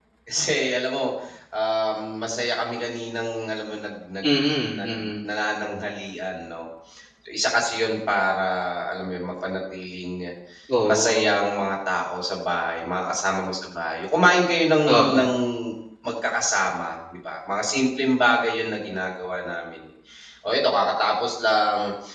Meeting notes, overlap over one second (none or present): none